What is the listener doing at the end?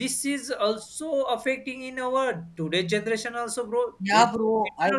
taking over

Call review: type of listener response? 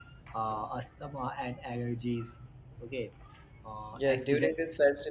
taking over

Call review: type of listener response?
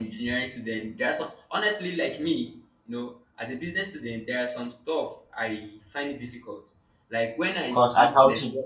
listening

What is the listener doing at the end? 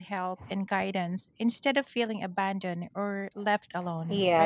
taking over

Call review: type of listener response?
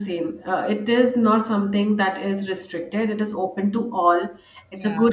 listening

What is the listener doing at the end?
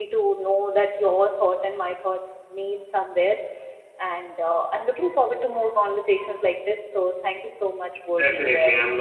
taking over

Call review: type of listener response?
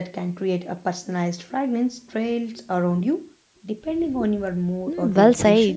taking over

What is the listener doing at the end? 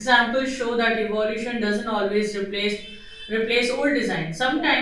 listening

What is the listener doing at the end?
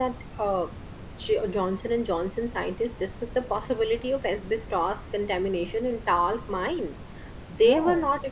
listening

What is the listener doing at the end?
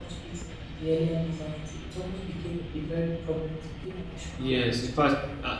taking over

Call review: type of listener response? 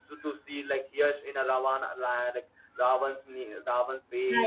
listening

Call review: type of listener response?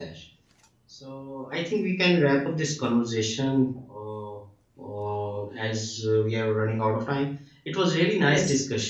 listening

